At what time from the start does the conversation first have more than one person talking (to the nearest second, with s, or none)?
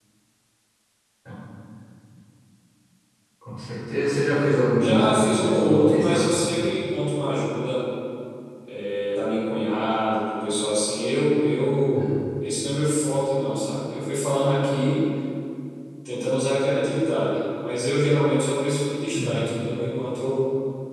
5 s